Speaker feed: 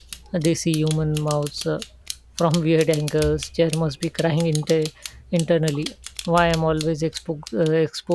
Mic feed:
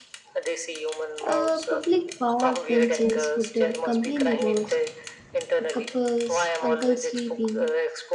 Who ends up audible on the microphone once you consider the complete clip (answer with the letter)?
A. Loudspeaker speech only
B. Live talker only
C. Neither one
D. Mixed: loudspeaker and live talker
D